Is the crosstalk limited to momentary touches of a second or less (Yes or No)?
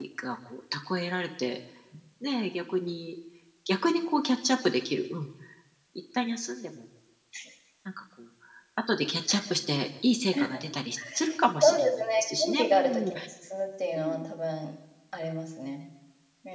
No